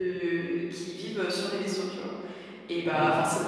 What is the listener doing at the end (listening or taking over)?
listening